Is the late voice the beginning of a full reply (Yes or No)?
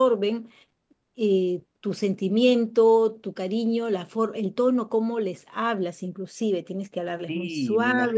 Yes